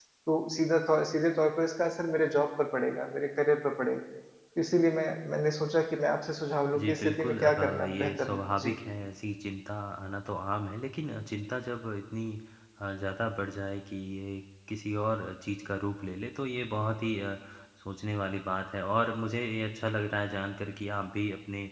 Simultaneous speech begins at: 6.7 s

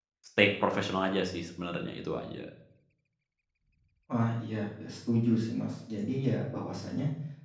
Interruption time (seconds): none

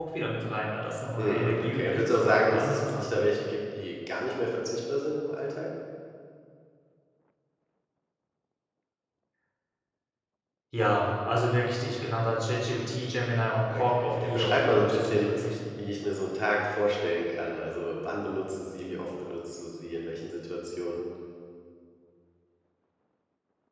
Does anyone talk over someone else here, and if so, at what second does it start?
1.2 s

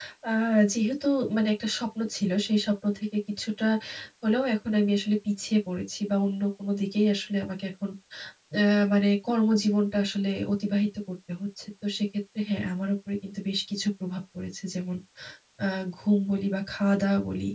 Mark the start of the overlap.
none

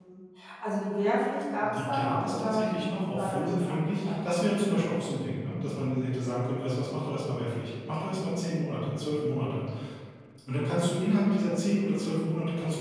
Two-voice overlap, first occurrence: 1.6 s

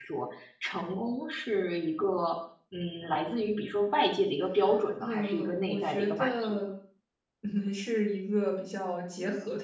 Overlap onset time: 5.0 s

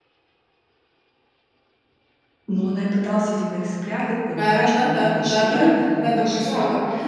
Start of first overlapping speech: 4.3 s

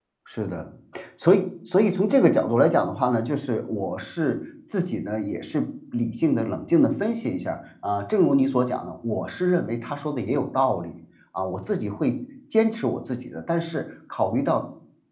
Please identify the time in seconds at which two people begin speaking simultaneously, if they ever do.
none

